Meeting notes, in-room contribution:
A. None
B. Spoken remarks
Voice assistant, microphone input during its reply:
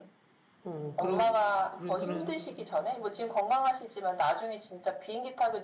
B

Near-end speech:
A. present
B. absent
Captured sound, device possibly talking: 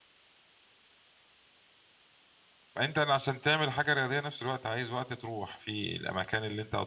A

